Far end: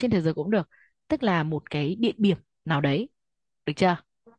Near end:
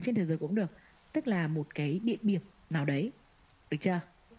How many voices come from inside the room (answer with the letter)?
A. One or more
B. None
B